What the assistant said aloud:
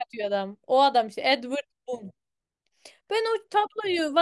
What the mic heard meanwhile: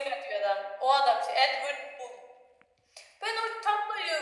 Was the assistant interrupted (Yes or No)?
No